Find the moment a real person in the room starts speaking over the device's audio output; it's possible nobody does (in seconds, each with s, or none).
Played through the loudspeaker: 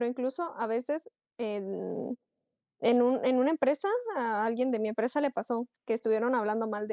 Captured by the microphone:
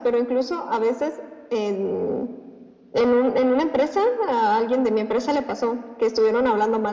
none